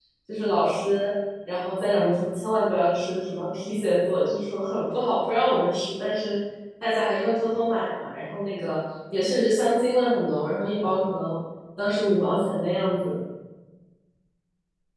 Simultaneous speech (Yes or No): No